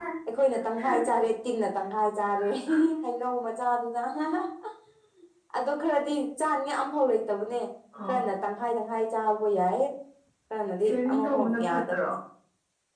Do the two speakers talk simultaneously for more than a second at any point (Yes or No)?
Yes